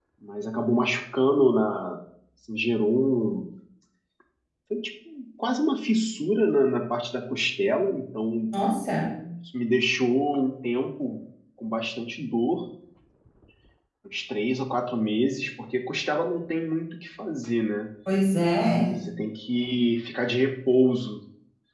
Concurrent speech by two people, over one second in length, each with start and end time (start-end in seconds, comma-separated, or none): none